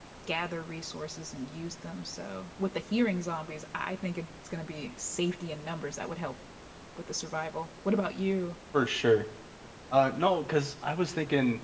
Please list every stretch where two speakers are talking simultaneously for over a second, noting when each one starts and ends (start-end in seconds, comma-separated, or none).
none